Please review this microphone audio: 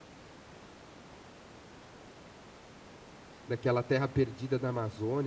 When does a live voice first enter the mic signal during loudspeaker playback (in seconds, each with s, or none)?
3.5 s